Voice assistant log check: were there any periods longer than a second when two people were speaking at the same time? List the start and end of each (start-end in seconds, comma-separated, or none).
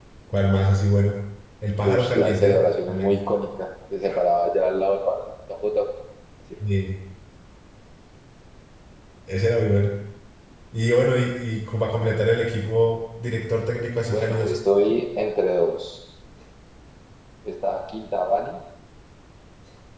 1.8-3.2